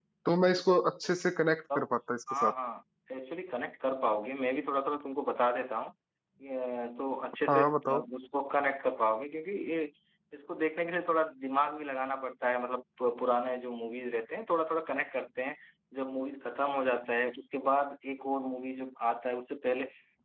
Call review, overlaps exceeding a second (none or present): none